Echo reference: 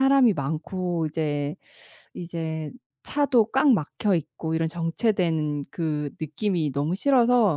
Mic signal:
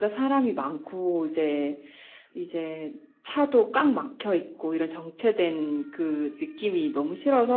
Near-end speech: none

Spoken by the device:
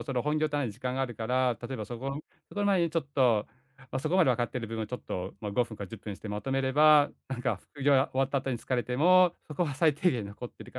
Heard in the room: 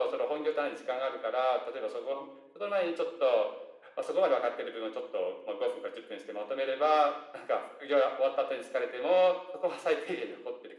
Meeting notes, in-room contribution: none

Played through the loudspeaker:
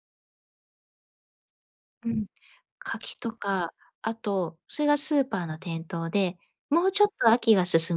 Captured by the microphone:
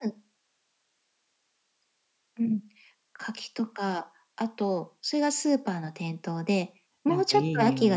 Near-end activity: present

